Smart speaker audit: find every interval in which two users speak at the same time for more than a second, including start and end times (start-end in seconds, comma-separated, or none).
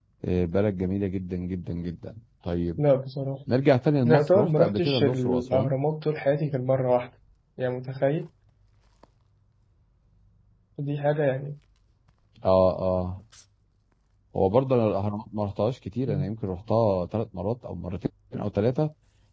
4.0-5.7